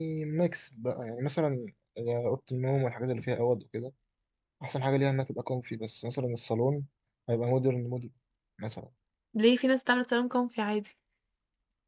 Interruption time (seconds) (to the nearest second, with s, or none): none